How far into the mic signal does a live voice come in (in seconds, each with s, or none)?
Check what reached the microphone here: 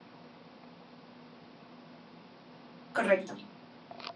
2.9 s